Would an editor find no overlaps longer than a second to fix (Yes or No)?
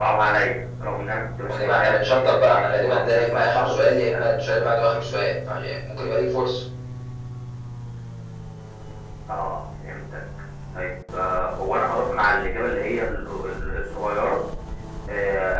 No